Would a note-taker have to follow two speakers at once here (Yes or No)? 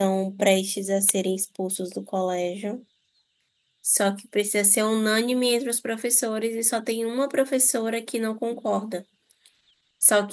No